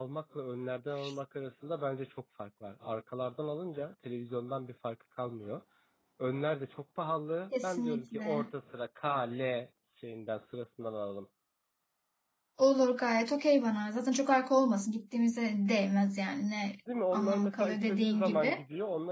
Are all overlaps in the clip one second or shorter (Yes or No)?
No